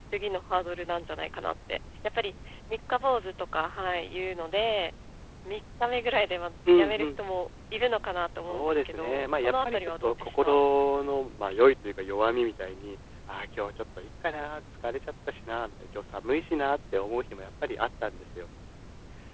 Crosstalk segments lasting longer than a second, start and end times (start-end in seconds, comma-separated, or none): 8.5-10.6